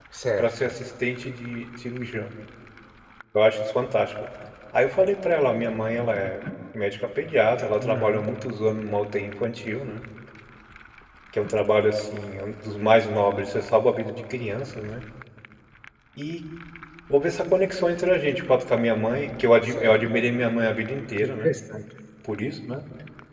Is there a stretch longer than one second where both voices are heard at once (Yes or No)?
No